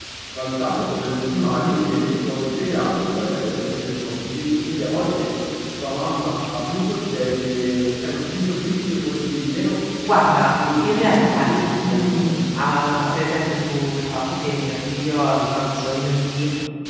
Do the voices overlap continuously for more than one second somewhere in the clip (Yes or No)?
Yes